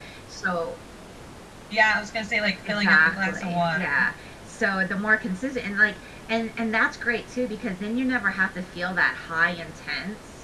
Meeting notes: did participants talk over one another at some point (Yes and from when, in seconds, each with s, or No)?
Yes, from 2.6 s